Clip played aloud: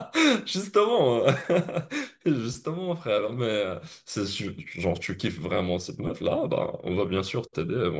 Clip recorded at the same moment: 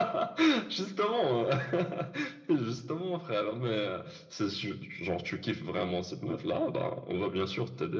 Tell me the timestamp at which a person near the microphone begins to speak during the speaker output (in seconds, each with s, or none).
none